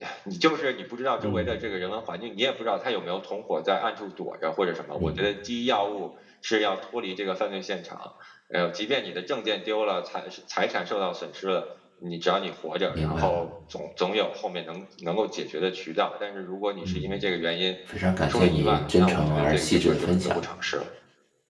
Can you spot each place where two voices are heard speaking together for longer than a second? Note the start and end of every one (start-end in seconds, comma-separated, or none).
18.3-20.3